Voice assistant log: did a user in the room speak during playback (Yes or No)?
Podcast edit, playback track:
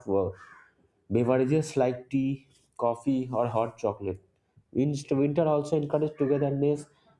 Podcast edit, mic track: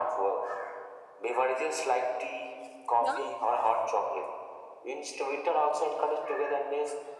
Yes